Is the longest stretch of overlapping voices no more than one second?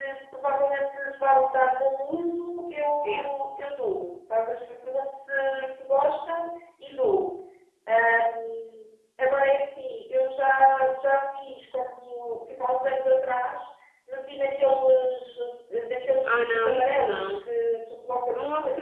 No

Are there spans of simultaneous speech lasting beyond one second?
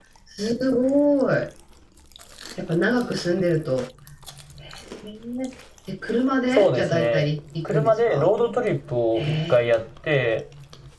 Yes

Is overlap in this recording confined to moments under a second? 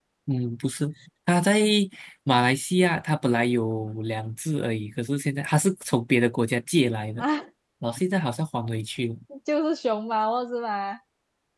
Yes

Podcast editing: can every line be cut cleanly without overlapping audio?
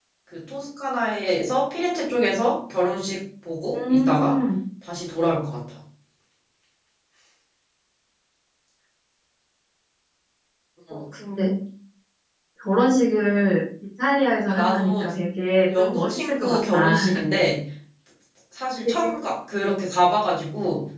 No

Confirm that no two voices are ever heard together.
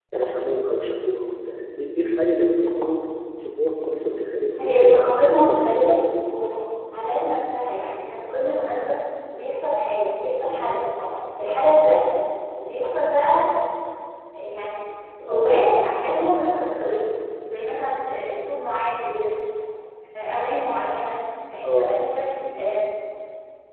No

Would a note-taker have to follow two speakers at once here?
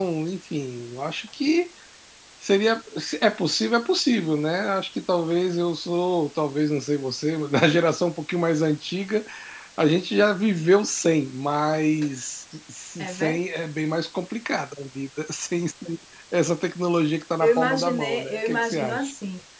Yes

